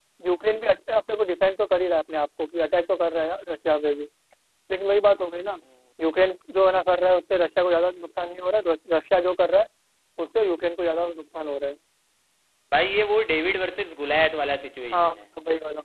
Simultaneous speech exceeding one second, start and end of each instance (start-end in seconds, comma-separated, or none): none